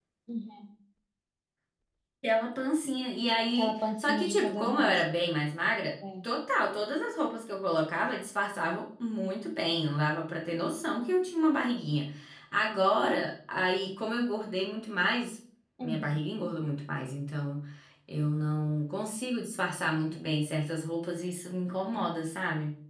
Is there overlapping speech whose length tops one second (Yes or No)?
Yes